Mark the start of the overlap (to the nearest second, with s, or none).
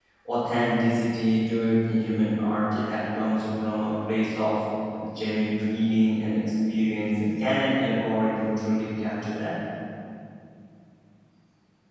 none